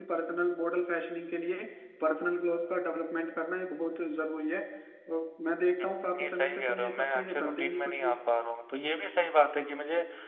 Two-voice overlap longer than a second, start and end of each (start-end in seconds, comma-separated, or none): 5.8-8.1